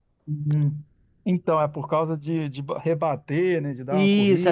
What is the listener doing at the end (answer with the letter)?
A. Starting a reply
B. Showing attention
A